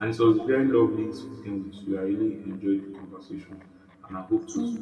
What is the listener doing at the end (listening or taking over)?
listening